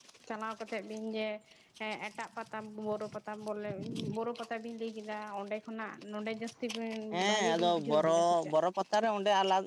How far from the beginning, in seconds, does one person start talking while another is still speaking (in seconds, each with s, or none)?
7.3 s